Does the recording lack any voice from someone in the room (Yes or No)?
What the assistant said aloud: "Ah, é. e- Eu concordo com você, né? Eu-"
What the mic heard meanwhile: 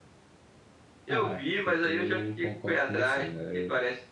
No